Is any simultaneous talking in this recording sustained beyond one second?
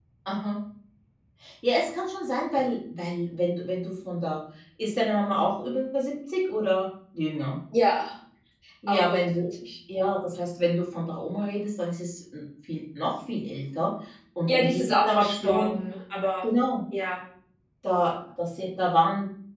Yes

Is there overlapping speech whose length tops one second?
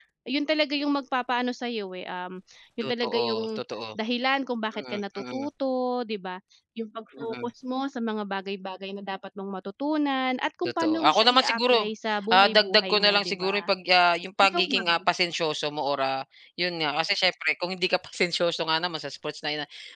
Yes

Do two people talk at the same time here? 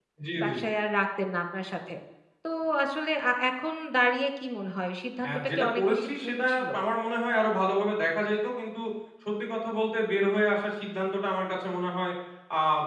Yes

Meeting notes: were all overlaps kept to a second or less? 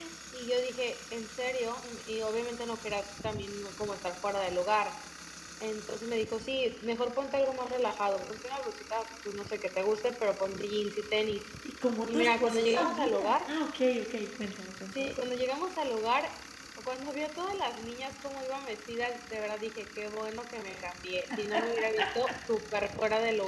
No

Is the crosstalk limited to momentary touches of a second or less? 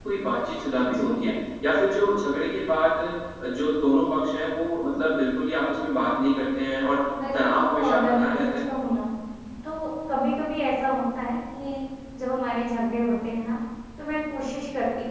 No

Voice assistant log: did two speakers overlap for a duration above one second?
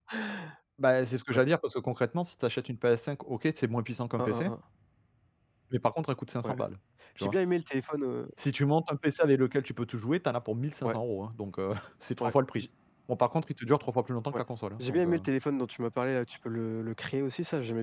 No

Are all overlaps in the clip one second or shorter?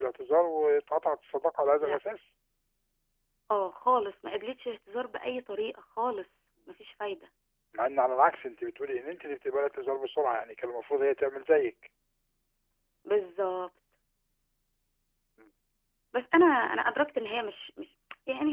Yes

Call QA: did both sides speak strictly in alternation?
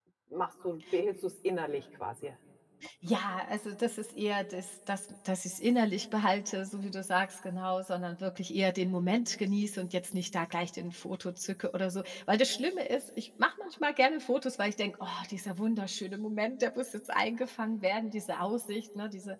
Yes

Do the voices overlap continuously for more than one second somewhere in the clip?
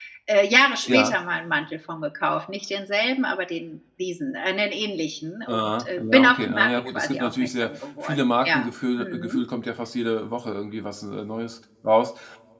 Yes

